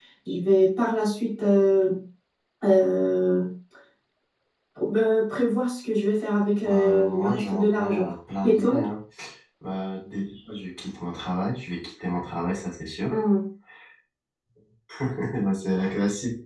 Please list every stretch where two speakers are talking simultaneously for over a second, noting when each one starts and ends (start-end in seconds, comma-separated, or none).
6.6-8.1